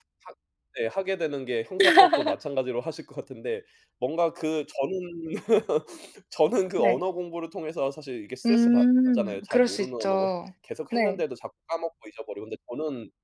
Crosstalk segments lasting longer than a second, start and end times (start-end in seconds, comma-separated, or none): 9.1-10.3